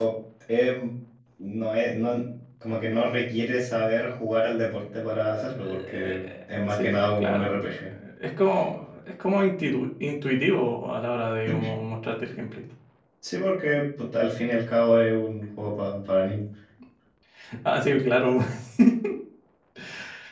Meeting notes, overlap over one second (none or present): present